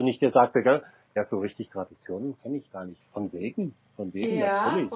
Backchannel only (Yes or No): No